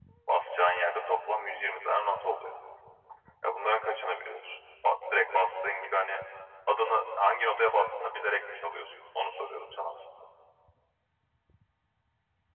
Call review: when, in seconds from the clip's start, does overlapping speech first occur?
none

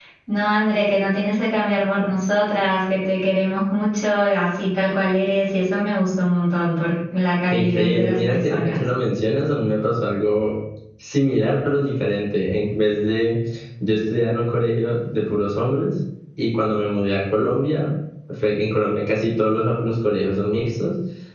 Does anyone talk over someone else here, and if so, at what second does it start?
8 s

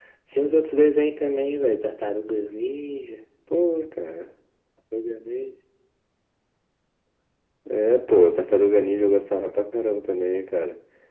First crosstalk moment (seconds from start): none

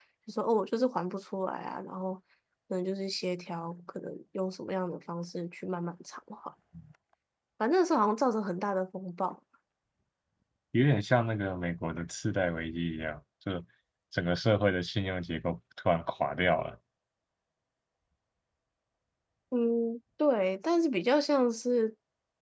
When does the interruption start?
none

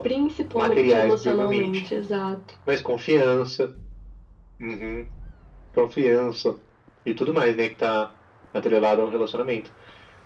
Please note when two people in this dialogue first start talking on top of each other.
1 s

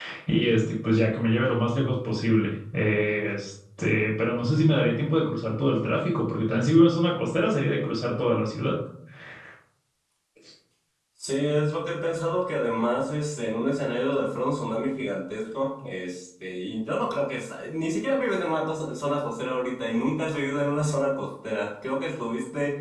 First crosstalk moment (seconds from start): none

